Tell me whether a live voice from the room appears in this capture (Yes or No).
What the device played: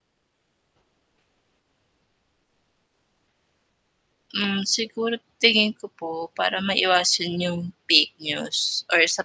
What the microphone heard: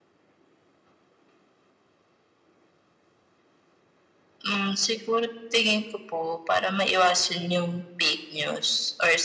No